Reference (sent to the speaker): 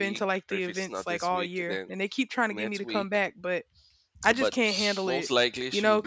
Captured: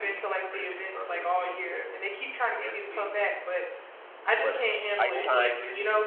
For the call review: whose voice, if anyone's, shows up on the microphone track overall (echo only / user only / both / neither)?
both